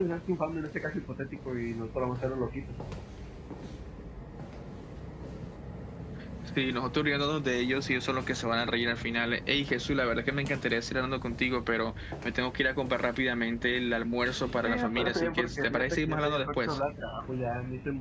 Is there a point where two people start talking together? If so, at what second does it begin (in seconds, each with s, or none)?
14.6 s